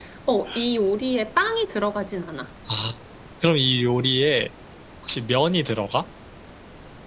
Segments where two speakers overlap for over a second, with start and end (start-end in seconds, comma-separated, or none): none